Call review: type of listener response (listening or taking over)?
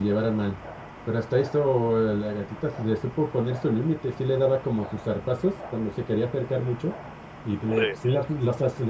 listening